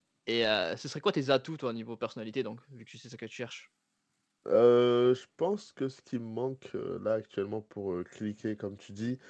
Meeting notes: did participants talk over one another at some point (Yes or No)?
No